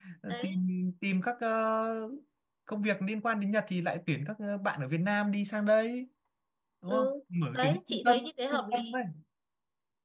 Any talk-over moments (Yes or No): Yes